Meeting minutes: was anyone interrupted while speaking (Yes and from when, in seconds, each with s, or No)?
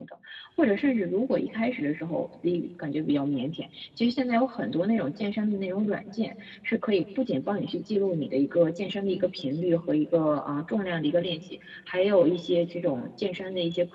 No